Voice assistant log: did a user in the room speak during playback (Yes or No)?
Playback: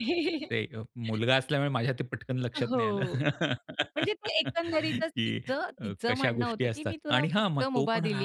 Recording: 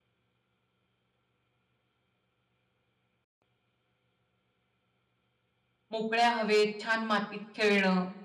Yes